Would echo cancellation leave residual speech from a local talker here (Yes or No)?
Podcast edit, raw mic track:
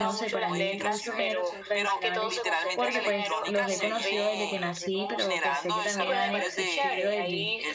Yes